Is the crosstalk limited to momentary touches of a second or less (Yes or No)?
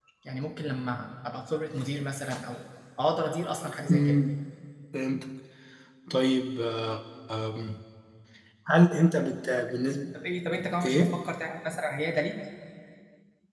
Yes